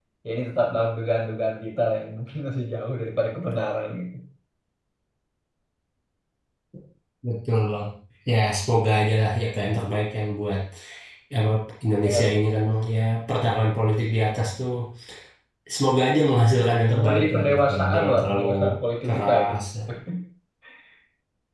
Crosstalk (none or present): present